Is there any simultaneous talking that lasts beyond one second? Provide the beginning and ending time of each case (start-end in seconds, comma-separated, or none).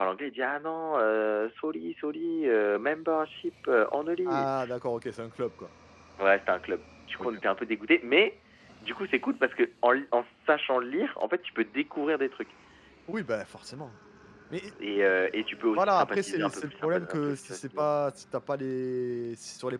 15.8-17.9